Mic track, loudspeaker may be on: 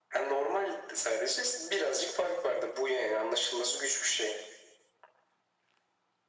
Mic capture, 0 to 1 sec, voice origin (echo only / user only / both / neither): echo only